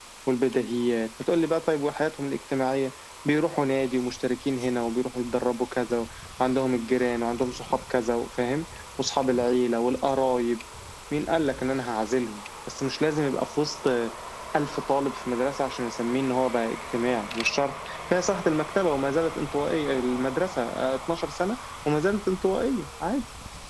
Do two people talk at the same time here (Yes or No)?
No